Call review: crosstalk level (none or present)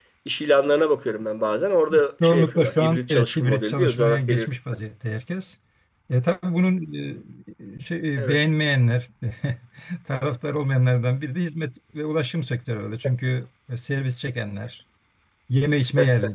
present